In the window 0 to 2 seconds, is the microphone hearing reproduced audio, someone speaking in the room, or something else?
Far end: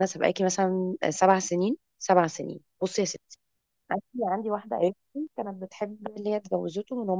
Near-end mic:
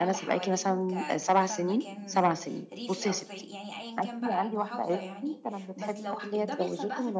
both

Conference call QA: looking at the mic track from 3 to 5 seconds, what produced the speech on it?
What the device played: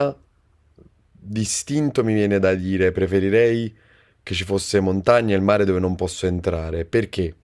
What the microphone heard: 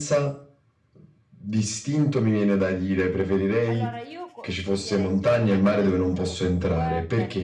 both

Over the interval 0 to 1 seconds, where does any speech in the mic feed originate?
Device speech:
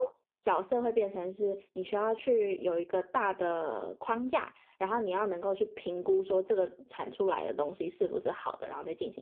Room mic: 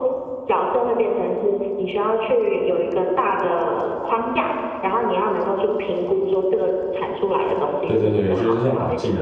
echo only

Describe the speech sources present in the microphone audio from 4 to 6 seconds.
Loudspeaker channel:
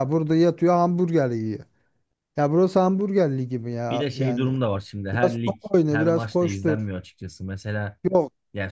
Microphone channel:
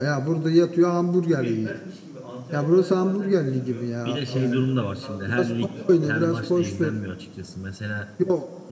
both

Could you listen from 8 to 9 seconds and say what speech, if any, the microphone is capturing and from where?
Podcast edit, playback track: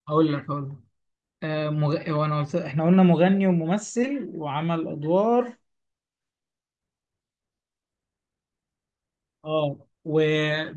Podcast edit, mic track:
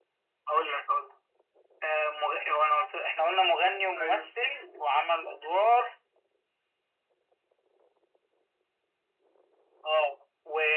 neither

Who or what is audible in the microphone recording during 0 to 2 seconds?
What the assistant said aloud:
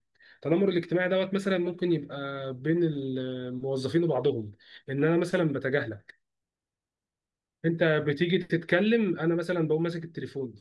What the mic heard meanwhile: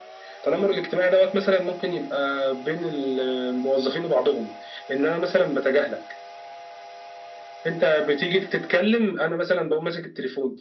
echo only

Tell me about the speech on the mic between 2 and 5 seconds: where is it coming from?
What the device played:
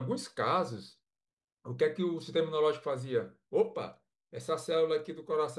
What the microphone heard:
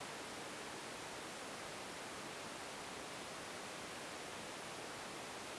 neither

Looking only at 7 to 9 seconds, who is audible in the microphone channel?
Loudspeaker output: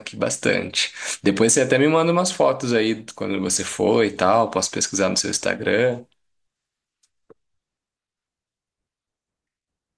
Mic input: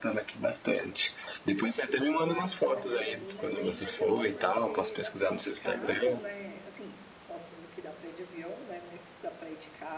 user only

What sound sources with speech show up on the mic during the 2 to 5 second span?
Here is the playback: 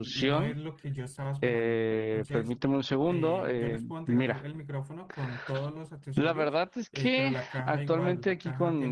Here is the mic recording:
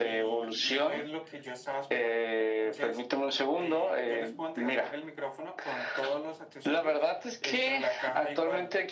echo only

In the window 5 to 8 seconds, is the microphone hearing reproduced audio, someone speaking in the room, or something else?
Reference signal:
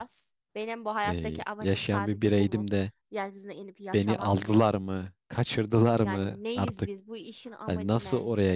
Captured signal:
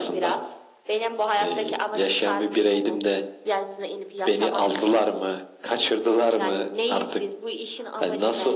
echo only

